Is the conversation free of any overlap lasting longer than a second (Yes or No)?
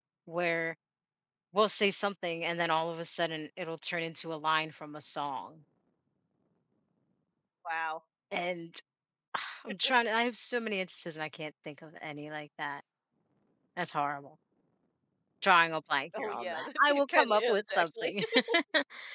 No